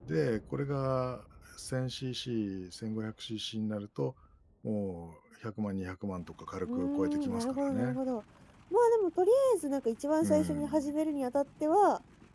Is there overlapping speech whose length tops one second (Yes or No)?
Yes